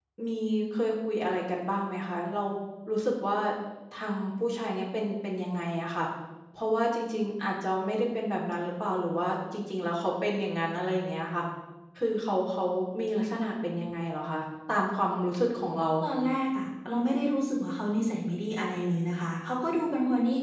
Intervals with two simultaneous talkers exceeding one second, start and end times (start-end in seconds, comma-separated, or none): none